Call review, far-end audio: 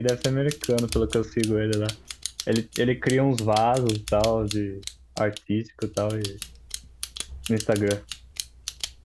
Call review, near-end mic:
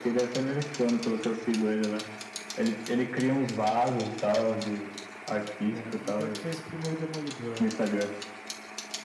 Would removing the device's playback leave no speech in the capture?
No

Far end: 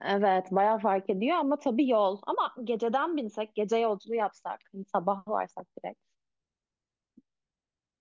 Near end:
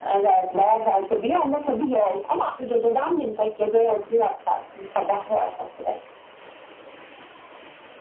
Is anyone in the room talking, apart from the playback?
No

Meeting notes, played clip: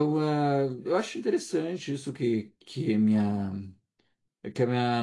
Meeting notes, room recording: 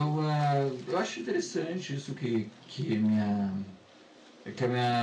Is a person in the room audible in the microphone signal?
No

